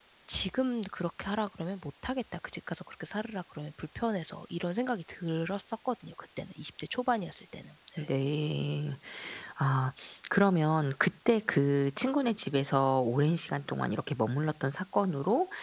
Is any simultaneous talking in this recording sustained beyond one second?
No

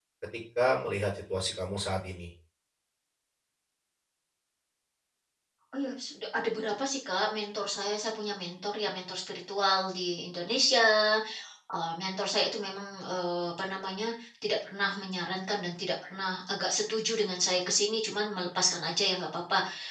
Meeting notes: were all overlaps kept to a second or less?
Yes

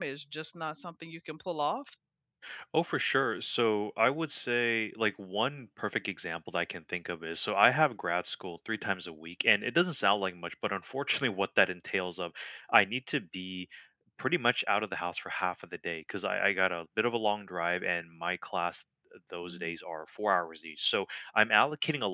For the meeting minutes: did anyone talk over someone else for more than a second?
No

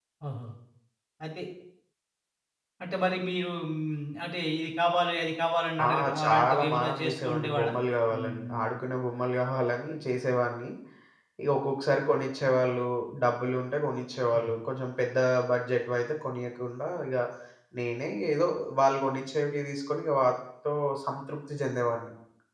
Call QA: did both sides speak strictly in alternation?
No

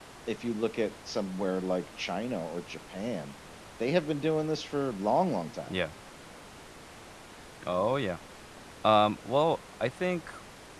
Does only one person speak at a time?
Yes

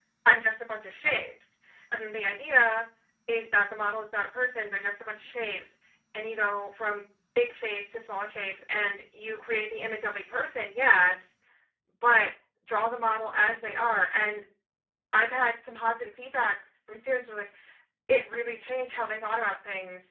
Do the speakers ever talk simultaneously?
No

